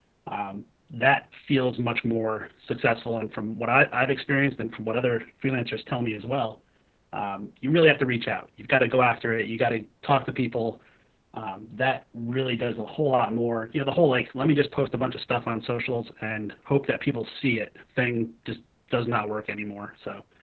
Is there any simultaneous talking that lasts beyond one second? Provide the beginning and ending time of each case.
none

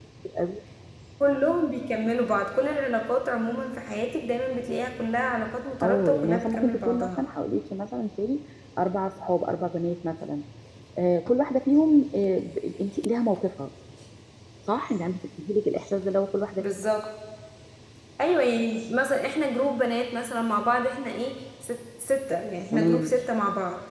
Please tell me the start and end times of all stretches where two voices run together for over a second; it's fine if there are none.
5.8-7.2

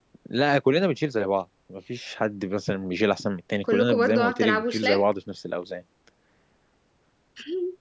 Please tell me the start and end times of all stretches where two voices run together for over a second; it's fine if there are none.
3.6-5.0

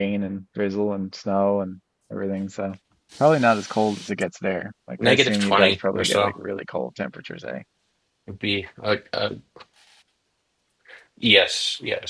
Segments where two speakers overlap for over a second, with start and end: 5.0-6.3

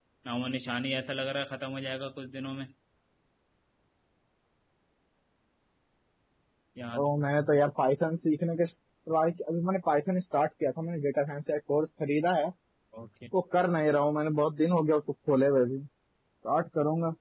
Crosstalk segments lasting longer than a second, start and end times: none

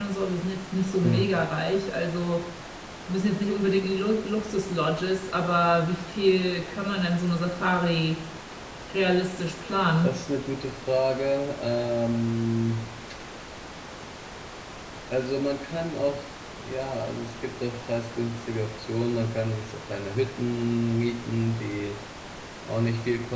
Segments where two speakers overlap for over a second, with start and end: none

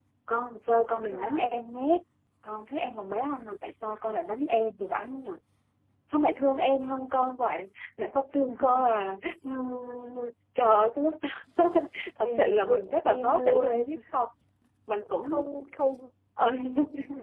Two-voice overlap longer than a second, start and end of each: 12.2-13.9

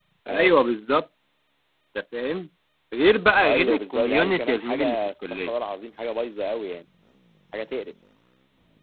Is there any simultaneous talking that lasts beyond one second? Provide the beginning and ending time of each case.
3.4-5.5

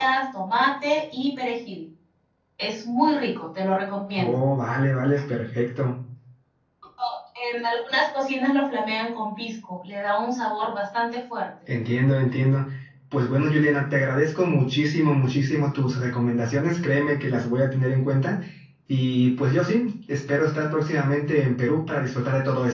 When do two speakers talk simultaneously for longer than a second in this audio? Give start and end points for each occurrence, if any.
none

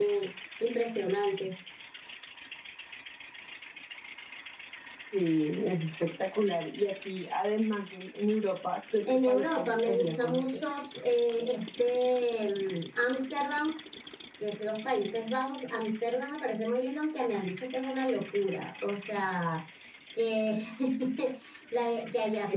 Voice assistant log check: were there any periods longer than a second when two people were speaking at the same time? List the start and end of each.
9.0-10.6

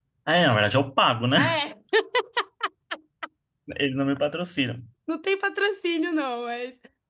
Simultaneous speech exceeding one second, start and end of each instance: none

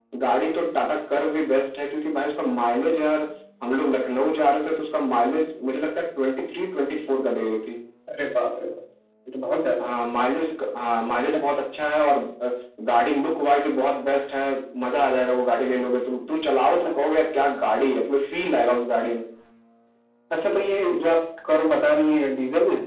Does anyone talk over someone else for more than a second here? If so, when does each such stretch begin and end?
none

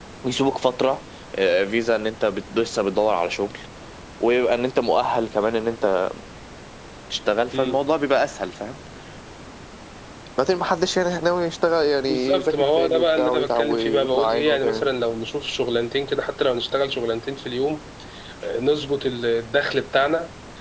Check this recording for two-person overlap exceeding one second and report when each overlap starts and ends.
12.1-14.9

